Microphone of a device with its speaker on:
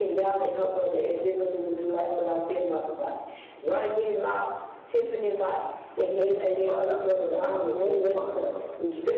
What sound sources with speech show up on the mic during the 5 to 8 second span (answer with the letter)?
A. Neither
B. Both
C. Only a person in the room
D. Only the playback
B